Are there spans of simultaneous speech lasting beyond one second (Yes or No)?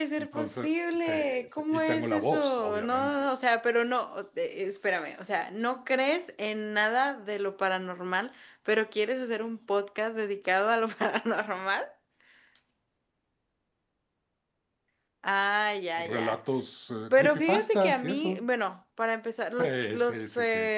Yes